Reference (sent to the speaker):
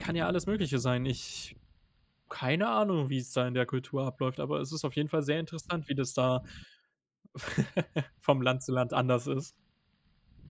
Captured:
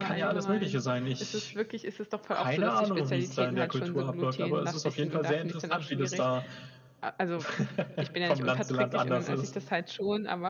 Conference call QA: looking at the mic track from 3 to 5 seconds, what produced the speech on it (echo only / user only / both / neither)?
both